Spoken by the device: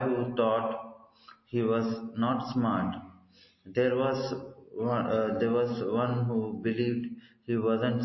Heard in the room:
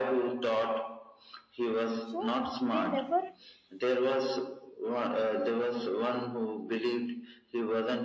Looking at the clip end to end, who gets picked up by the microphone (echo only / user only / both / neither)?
both